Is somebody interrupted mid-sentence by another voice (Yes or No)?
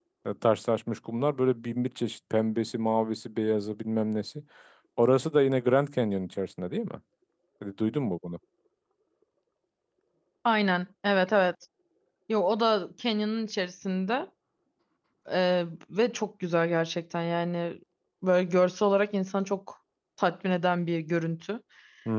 No